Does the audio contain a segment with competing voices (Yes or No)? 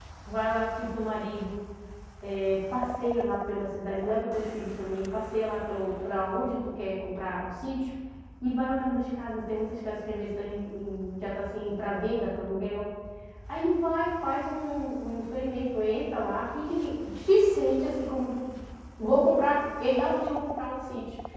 No